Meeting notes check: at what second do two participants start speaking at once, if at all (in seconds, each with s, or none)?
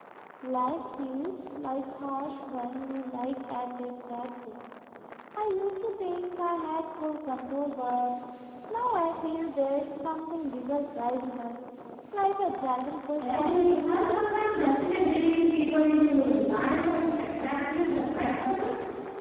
13.1 s